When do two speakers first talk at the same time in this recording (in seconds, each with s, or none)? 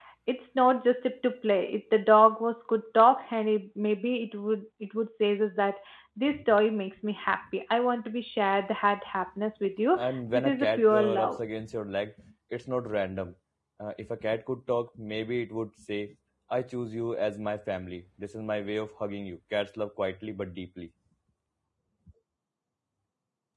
9.9 s